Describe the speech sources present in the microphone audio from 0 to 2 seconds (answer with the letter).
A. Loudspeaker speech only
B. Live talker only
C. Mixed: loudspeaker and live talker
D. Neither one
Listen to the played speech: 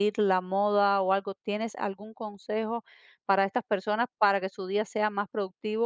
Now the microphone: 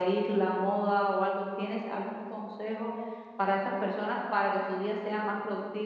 A